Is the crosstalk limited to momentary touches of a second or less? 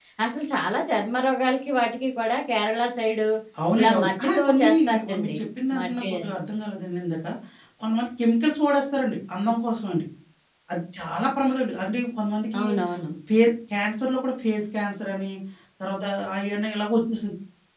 No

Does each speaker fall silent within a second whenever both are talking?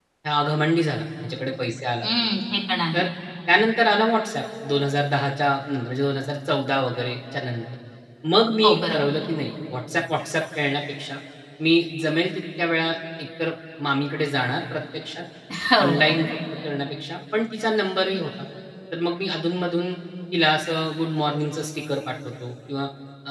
Yes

